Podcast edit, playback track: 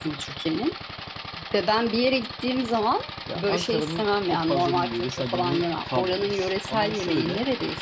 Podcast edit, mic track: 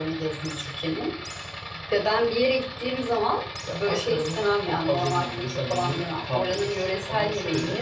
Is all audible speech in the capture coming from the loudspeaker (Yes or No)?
Yes